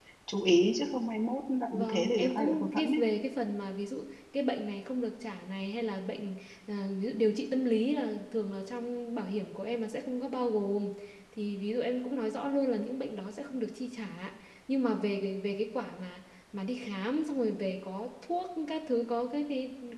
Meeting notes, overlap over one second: present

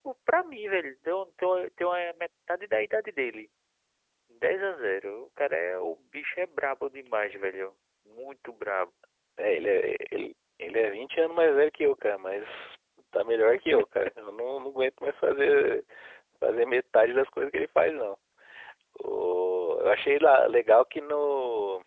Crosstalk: none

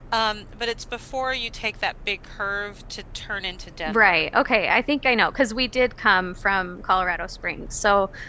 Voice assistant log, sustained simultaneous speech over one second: none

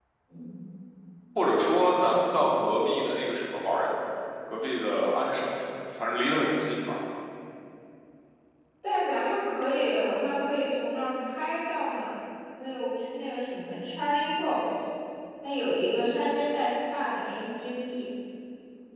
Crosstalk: none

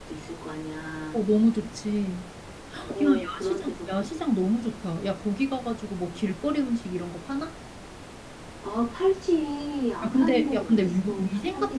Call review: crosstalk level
present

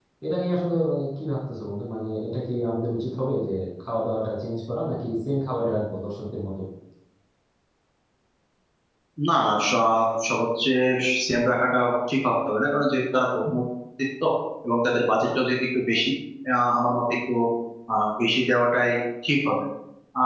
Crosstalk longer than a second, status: none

